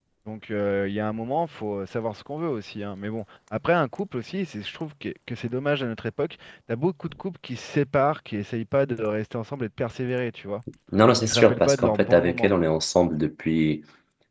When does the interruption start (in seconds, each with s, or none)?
11.2 s